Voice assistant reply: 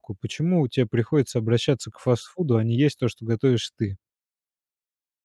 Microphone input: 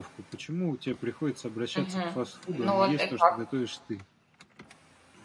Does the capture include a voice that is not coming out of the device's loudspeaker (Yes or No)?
Yes